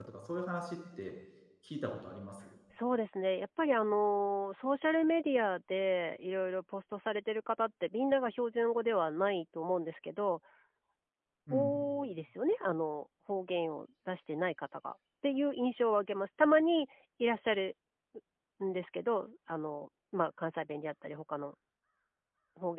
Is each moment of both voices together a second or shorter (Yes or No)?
Yes